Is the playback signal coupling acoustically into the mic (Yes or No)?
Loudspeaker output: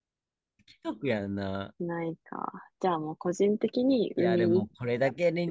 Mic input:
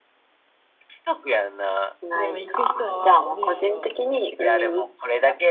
Yes